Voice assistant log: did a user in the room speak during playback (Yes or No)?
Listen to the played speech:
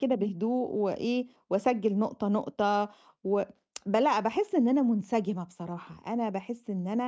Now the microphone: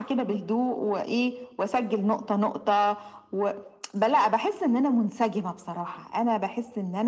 No